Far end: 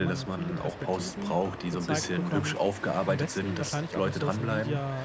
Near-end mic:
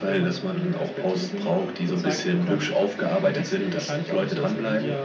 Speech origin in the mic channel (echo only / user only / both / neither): echo only